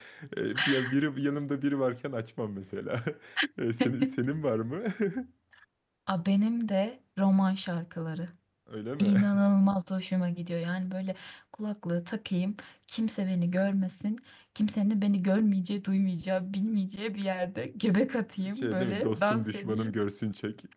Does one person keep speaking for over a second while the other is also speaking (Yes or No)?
Yes